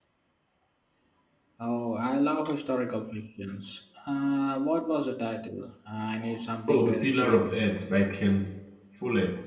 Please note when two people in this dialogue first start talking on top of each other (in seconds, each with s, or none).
6.7 s